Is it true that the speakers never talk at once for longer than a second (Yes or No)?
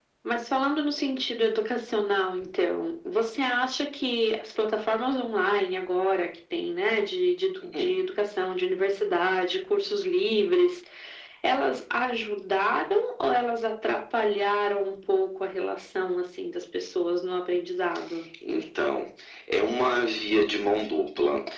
Yes